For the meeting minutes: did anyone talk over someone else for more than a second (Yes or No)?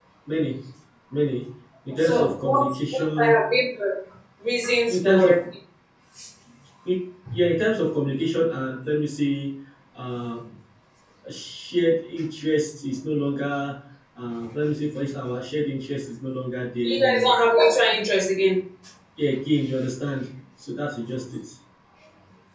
Yes